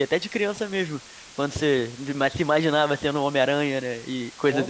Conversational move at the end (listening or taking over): taking over